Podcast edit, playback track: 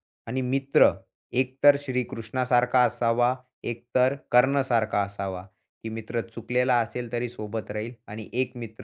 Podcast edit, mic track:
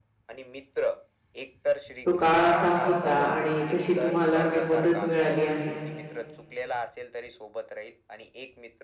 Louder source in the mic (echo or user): user